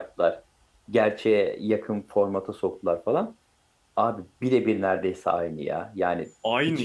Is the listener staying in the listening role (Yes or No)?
Yes